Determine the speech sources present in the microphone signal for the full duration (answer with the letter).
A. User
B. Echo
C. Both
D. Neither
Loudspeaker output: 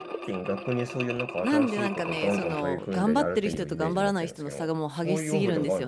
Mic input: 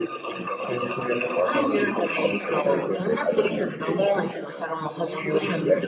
B